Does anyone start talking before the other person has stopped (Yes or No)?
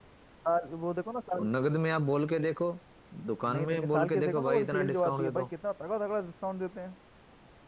Yes